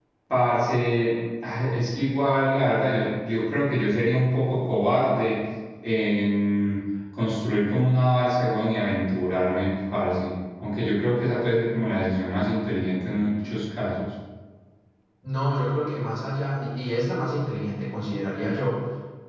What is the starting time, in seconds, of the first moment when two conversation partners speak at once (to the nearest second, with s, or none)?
none